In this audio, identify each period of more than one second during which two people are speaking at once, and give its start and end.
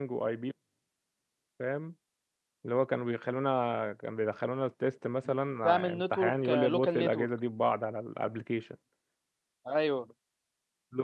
5.6-7.3

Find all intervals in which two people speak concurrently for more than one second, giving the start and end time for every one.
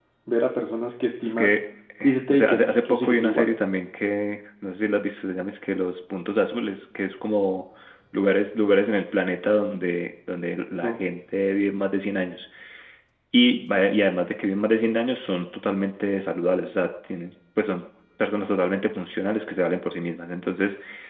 2.0-3.5

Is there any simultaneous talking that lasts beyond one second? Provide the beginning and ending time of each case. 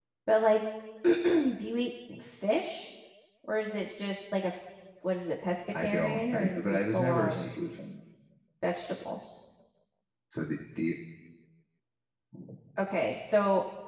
5.7-7.4

